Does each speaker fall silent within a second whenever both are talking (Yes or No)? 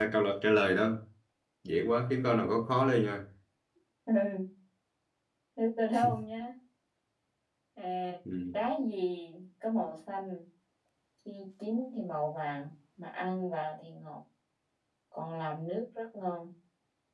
Yes